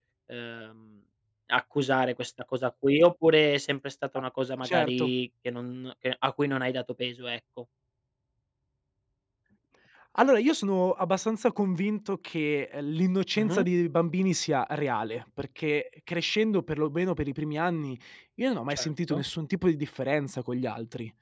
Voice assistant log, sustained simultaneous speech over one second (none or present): none